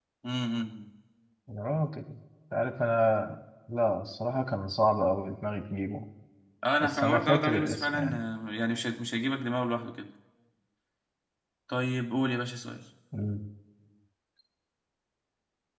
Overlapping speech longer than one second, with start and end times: 6.8-8.2

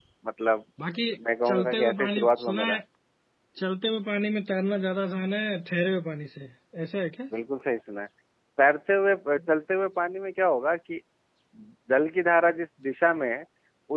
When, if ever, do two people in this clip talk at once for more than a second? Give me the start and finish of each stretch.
1.5-2.8

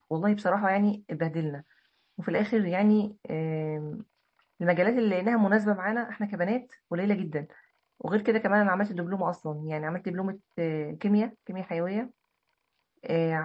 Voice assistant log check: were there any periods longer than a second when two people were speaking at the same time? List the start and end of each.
none

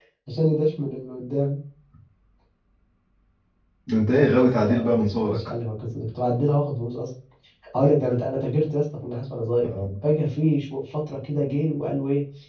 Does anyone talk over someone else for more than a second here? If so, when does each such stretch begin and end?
4.1-5.4

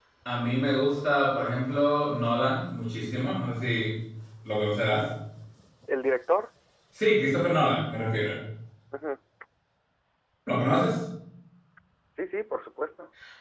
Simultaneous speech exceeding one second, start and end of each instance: none

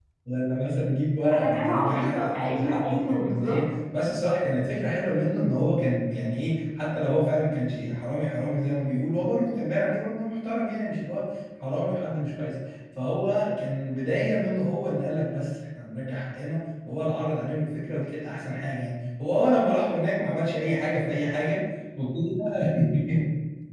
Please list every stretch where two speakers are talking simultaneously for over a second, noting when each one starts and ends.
1.4-3.6

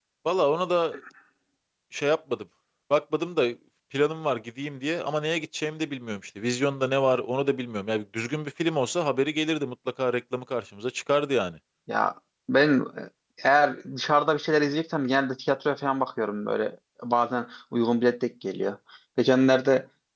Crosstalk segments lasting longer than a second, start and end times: none

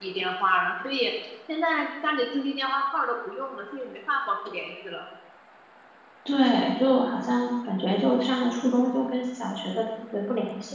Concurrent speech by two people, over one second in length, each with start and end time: none

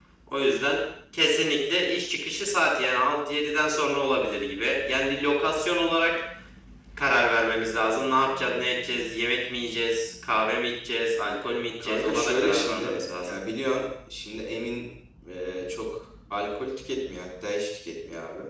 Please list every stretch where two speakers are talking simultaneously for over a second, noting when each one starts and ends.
11.8-13.4

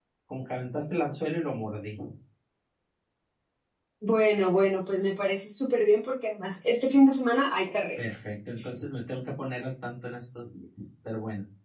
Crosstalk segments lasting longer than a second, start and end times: none

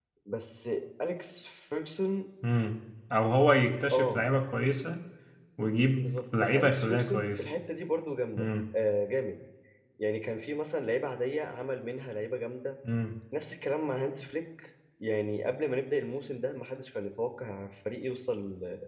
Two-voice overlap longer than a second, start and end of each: 6.0-7.4

